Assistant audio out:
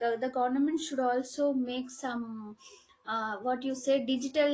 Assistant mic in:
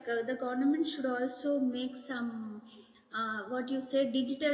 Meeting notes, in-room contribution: none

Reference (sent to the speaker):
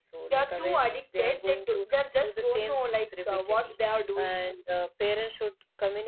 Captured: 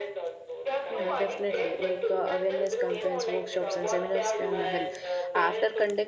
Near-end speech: present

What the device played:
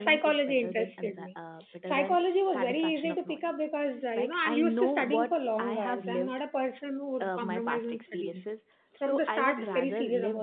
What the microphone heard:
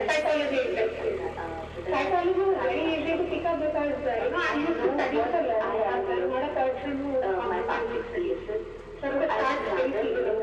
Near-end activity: none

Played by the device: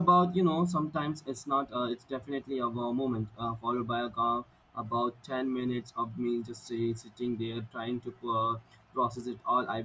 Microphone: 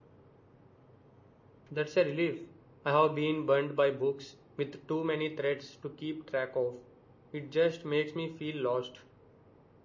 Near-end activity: present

